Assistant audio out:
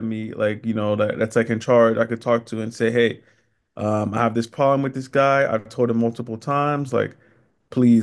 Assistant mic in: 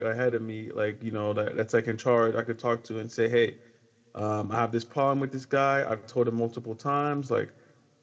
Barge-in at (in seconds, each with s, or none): none